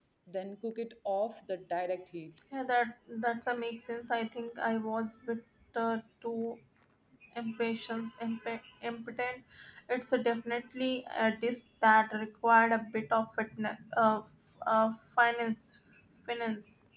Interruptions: none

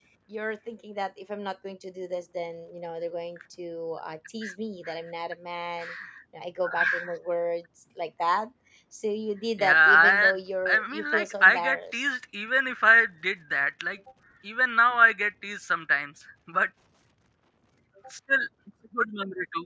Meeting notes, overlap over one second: present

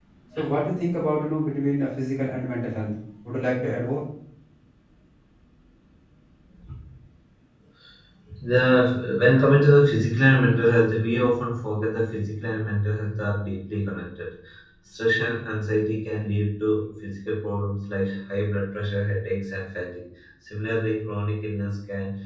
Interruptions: none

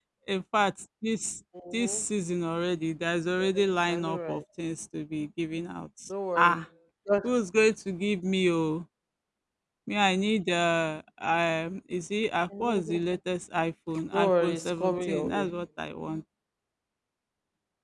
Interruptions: present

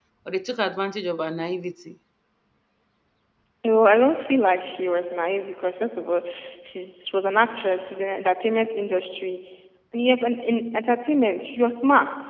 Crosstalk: none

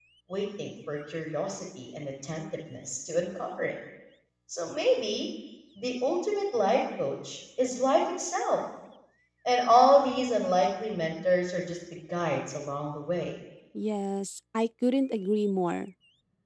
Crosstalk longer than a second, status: none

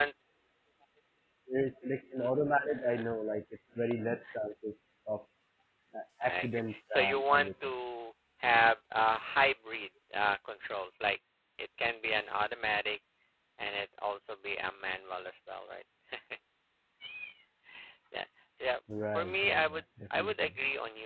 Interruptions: present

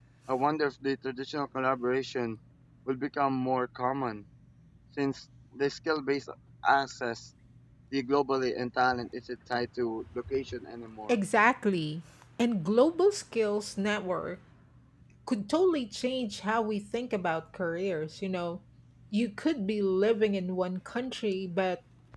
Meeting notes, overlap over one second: none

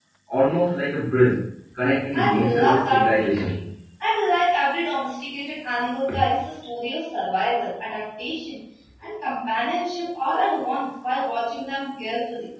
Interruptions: present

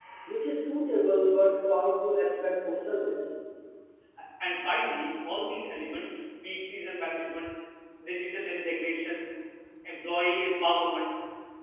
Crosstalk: none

